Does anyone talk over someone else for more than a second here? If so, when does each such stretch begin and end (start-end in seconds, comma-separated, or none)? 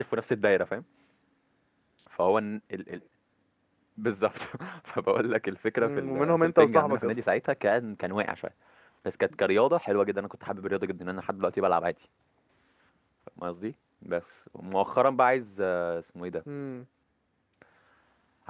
5.8-7.0